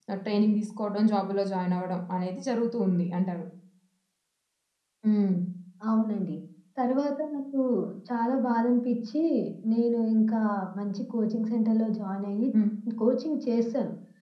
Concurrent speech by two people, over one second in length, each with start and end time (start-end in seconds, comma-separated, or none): none